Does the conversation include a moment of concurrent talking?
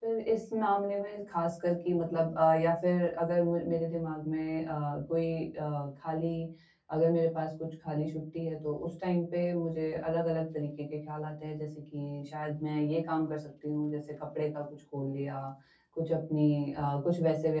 No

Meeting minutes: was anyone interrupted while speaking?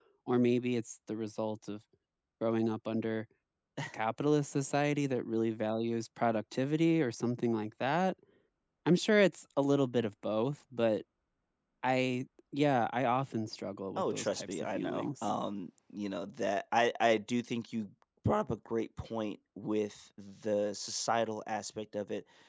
Yes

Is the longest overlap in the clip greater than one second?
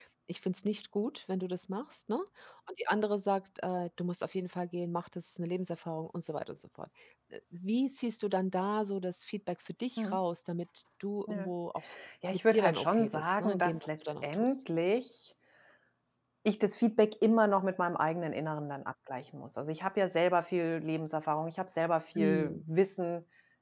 Yes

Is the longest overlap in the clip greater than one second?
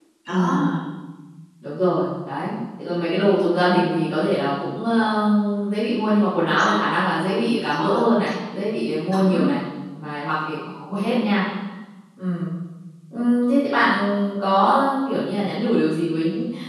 No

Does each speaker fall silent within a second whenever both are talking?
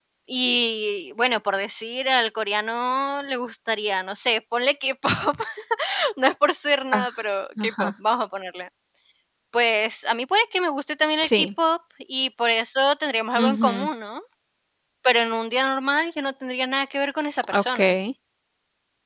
Yes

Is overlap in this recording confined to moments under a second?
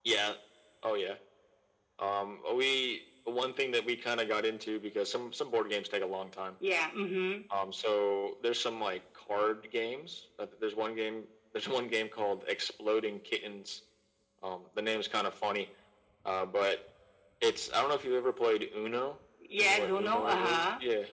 No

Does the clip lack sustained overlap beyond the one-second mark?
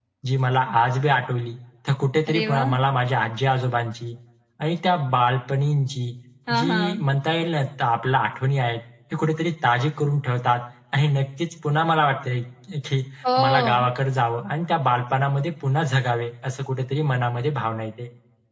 Yes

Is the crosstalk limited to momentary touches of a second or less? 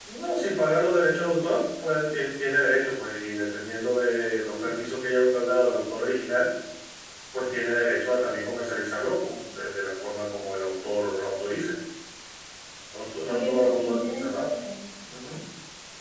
No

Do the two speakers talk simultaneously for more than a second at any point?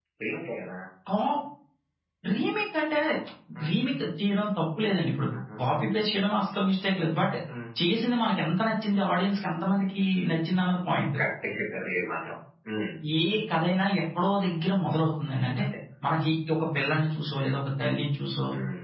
No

